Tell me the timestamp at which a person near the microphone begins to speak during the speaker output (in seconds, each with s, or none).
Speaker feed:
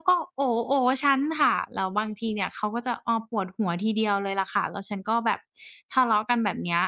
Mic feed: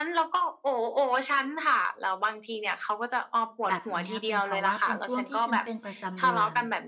3.7 s